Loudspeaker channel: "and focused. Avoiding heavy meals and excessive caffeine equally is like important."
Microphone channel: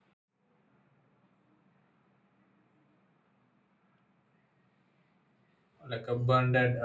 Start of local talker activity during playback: 5.9 s

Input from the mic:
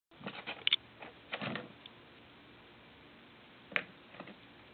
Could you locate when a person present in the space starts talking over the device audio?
none

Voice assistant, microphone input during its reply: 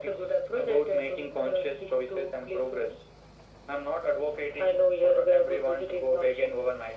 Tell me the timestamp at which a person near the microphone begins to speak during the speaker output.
none

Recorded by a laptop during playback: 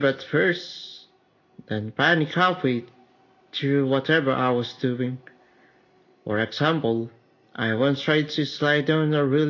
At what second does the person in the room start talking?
none

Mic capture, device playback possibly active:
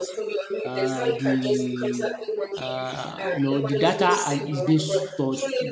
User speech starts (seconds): 0.6 s

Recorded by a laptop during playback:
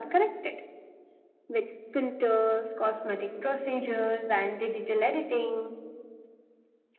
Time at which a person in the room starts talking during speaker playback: none

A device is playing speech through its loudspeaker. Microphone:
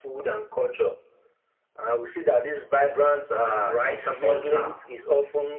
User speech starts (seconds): 3.4 s

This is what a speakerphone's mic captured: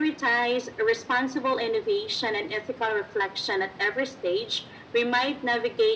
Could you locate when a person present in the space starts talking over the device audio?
none

